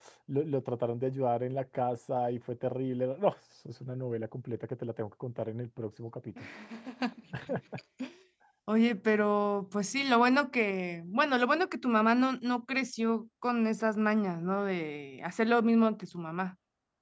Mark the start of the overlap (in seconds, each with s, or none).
none